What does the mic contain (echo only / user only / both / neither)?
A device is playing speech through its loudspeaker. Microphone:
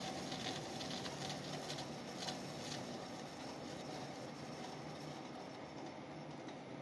neither